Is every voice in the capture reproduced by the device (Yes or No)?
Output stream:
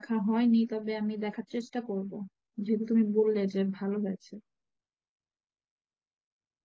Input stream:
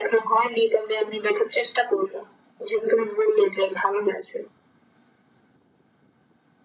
Yes